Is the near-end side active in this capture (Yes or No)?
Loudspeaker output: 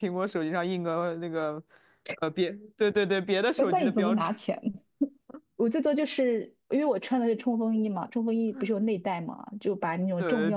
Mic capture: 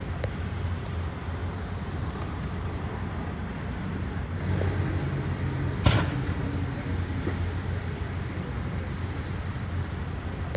No